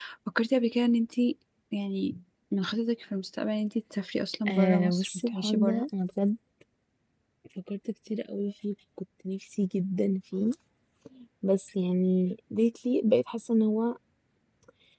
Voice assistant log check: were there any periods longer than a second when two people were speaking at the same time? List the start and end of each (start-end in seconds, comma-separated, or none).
4.5-5.8